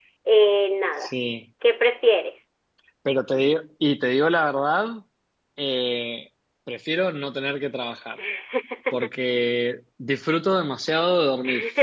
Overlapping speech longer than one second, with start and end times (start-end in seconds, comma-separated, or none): none